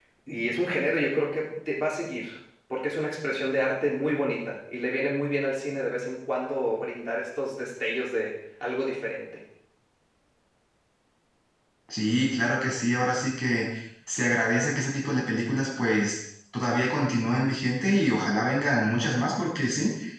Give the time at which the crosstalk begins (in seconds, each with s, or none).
none